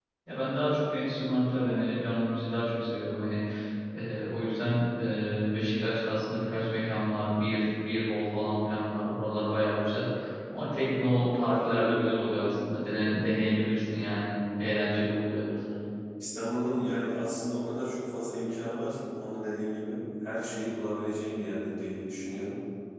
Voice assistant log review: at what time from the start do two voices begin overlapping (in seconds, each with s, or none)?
none